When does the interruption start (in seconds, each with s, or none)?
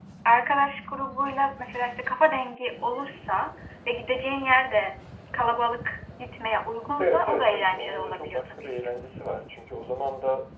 7.0 s